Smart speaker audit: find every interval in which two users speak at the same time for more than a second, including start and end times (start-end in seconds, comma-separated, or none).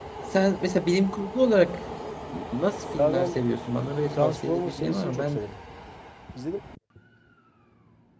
4.1-5.4